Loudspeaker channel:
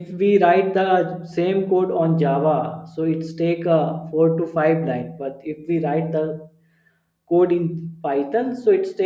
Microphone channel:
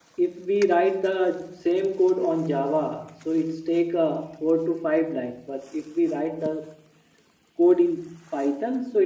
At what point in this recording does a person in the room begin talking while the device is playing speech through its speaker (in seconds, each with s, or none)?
none